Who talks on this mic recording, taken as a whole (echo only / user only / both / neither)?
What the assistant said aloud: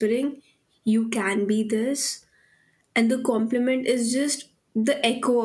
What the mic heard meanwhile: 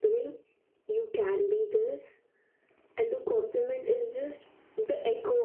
echo only